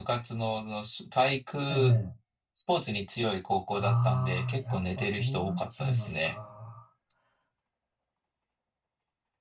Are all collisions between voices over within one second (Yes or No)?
No